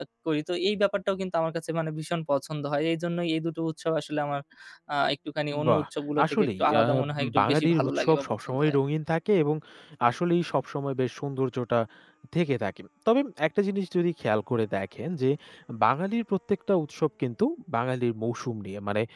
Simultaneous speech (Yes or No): Yes